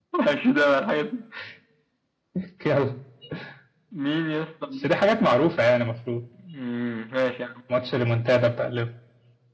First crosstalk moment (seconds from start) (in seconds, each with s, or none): none